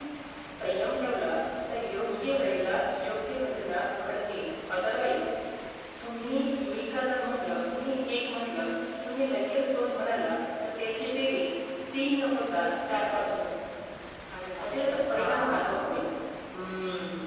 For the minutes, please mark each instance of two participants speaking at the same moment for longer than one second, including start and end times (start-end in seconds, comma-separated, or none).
14.6-16.0